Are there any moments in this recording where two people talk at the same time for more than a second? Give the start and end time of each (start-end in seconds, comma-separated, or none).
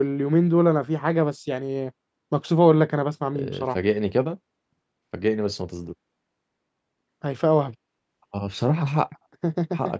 none